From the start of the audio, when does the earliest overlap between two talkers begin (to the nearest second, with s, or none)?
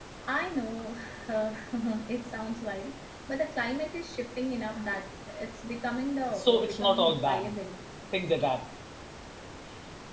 6 s